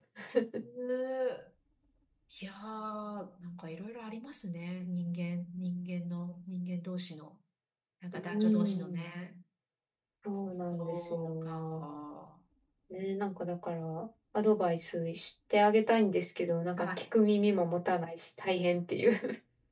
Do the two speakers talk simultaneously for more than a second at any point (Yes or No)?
Yes